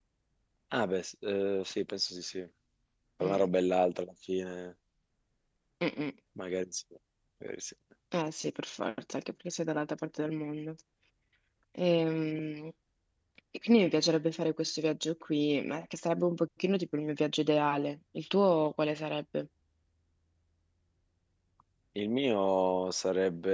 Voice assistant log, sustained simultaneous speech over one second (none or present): none